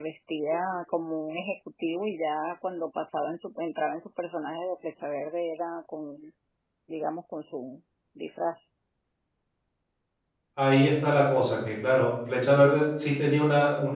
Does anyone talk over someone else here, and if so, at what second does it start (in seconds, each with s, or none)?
none